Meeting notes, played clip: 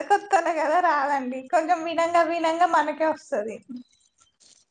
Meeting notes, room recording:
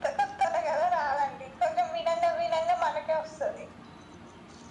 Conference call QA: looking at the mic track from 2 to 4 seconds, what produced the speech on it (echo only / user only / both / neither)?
echo only